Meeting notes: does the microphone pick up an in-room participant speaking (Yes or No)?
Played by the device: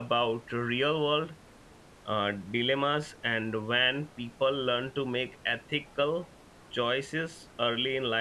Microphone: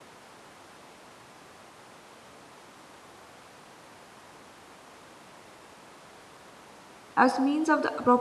Yes